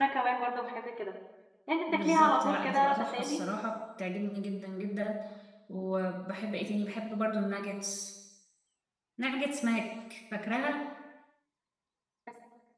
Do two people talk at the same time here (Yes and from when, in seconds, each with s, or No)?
Yes, from 1.9 s